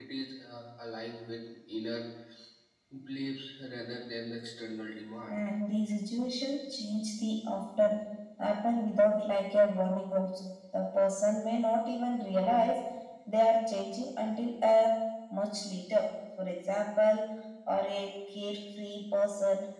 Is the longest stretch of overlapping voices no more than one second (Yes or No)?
Yes